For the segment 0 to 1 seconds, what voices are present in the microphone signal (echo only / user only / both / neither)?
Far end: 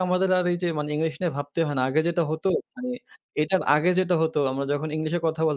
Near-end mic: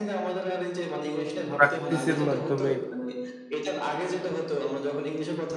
echo only